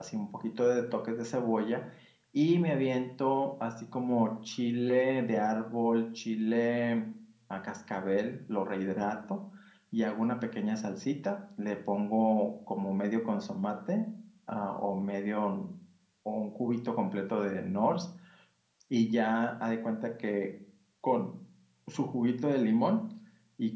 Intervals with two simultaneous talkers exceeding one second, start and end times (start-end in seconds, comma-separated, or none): none